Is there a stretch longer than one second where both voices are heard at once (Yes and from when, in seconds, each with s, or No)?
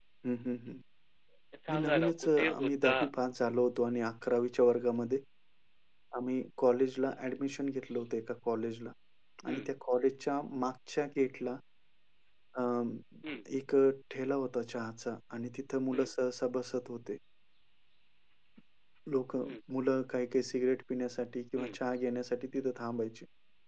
Yes, from 1.7 s